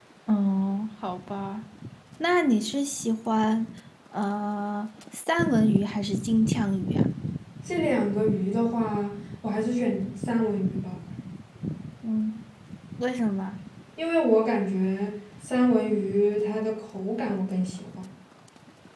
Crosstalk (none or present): none